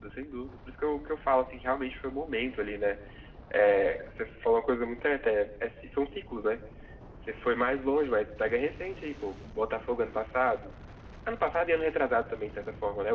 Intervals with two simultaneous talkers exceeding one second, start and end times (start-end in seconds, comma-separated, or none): none